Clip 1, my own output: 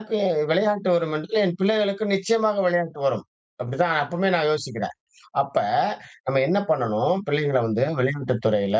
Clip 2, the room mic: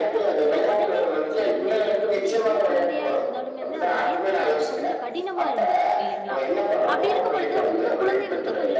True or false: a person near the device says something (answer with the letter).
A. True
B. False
A